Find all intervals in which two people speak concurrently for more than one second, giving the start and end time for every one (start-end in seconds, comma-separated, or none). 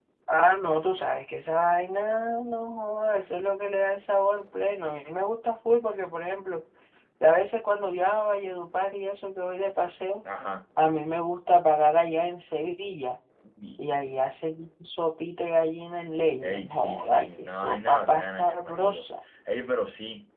16.4-19.0